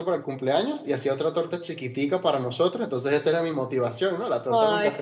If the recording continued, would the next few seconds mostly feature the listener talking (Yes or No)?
Yes